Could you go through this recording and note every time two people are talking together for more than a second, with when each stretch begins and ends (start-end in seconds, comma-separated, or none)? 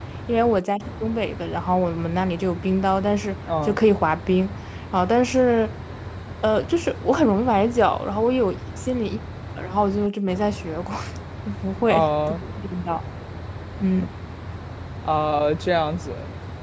none